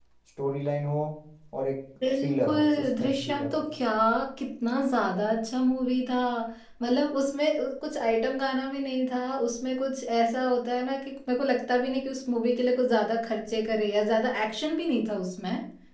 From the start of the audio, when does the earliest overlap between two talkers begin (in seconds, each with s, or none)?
2.1 s